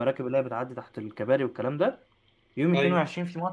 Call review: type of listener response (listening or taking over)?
listening